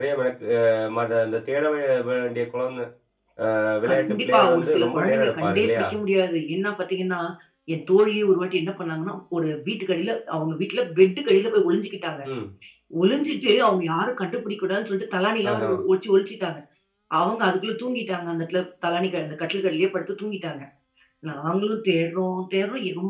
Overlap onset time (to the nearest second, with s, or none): 4 s